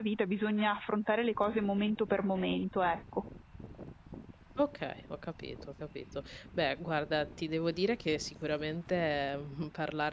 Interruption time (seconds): none

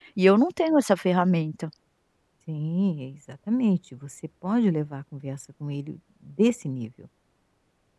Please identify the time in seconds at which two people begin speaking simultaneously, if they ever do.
none

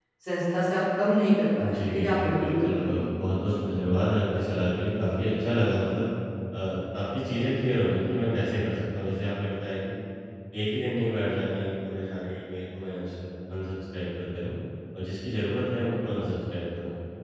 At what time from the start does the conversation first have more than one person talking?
1.6 s

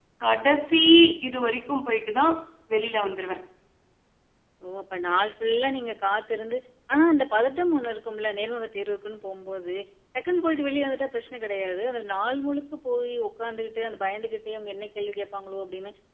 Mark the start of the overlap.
none

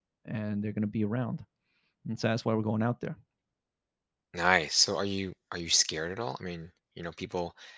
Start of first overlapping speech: none

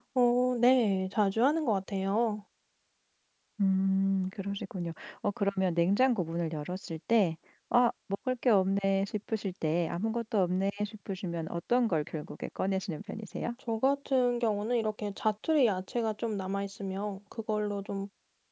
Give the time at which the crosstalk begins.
none

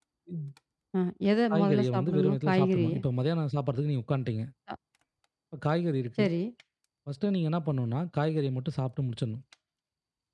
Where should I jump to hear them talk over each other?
1.5 s

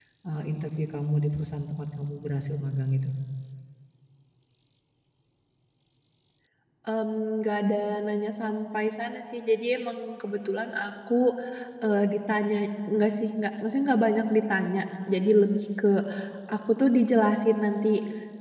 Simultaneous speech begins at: none

